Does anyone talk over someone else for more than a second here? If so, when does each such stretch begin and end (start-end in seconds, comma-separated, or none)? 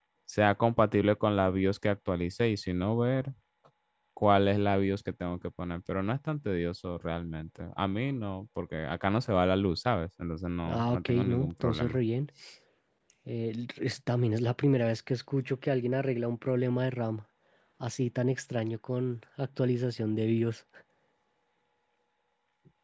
10.7-12.0